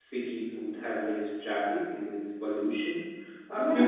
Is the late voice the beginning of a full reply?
No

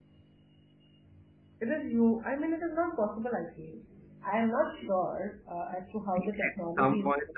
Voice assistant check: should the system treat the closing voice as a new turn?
Yes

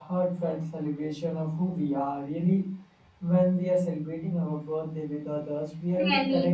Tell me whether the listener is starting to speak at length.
Yes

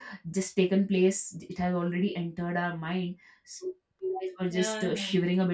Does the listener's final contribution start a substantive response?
No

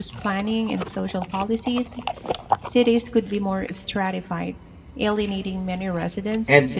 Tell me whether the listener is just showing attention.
No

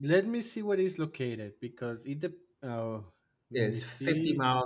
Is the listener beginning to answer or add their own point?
Yes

